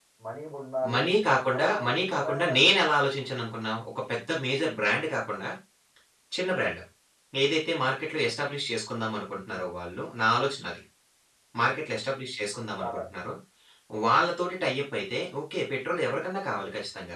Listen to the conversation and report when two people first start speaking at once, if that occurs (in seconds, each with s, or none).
0.9 s